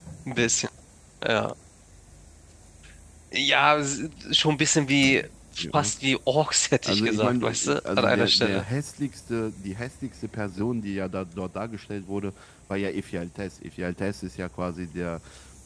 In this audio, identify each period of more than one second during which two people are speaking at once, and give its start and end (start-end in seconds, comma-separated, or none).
6.8-8.6